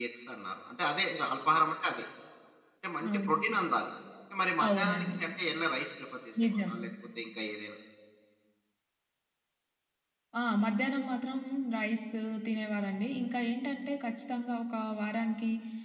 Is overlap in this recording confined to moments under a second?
Yes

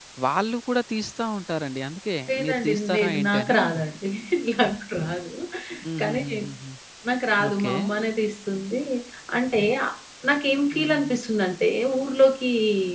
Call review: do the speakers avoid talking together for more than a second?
No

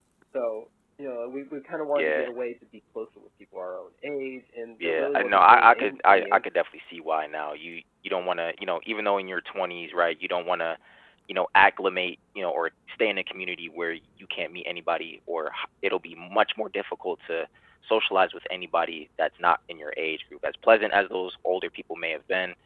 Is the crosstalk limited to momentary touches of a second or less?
No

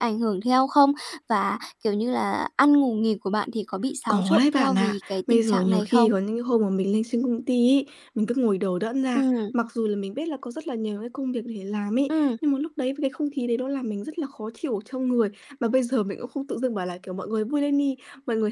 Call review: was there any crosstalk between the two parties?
Yes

